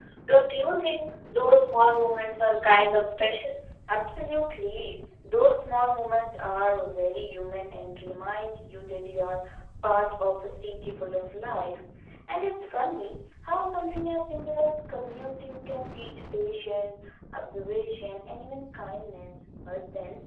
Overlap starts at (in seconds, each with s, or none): none